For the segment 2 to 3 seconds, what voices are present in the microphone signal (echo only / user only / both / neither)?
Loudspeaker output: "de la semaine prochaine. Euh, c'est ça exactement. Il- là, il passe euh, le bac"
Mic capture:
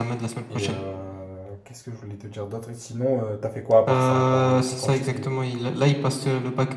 user only